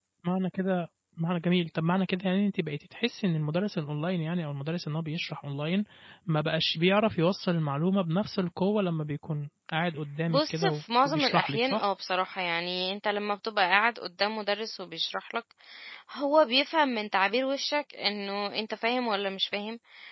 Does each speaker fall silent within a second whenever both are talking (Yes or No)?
No